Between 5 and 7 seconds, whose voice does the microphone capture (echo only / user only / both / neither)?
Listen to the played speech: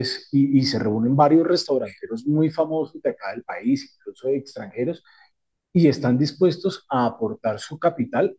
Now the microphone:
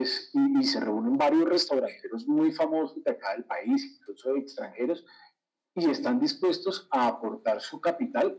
echo only